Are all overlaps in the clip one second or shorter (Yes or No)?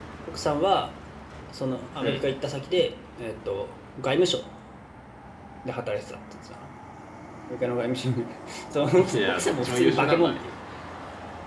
No